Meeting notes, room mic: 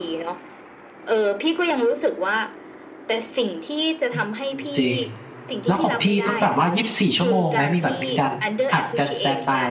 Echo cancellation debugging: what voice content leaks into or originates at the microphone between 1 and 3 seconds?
echo only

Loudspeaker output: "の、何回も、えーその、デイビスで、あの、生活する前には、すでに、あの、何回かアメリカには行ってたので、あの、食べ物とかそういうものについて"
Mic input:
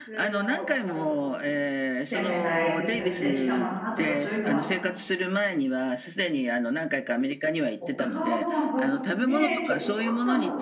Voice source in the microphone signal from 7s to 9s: both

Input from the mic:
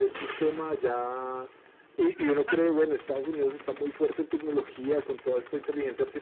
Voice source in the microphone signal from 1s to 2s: echo only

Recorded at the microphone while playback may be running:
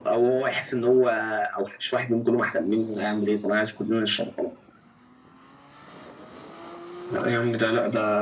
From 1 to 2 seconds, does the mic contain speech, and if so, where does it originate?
echo only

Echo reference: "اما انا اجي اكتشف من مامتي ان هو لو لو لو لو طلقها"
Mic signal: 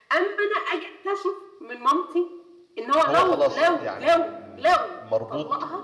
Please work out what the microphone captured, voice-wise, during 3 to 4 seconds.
both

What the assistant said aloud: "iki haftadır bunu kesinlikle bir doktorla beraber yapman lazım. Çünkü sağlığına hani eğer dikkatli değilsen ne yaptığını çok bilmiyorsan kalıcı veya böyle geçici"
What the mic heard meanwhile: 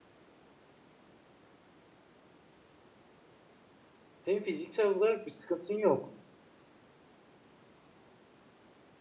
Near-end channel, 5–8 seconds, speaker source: user only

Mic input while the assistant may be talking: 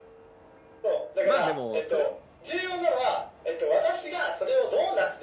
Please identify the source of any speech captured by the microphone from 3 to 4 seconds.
echo only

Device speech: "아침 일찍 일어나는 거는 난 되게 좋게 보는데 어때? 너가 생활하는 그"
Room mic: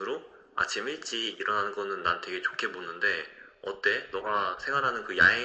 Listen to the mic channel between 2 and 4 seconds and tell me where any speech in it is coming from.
echo only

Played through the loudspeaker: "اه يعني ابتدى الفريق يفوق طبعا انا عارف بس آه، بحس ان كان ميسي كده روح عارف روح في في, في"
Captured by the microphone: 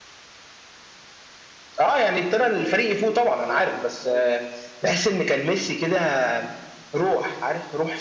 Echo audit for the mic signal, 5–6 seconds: echo only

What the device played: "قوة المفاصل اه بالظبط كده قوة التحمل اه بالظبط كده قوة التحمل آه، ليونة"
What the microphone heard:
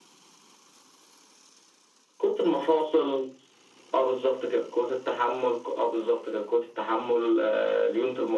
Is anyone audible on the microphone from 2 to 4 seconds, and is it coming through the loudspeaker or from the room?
echo only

